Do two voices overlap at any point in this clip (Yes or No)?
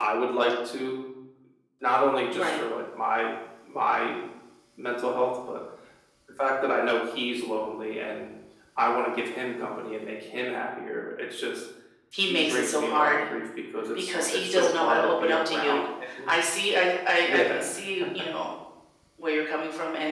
Yes